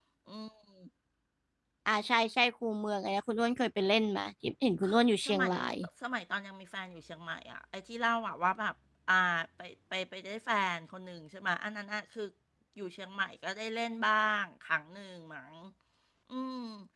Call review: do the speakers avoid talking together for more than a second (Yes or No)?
Yes